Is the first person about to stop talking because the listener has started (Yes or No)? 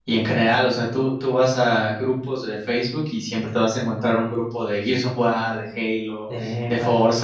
No